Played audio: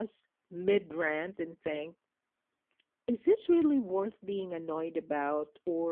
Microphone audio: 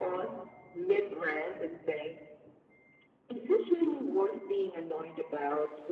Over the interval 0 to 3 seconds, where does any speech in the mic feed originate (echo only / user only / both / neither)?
echo only